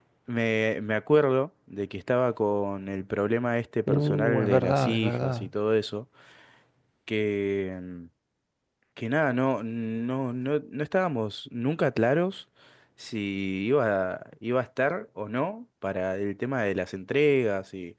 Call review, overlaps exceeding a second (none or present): present